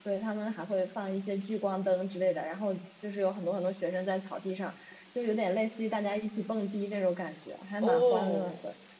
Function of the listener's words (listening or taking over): taking over